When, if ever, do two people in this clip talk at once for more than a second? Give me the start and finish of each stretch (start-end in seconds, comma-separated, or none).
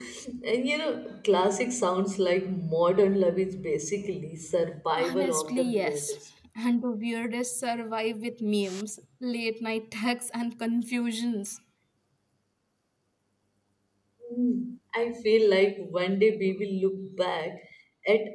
5.0-6.2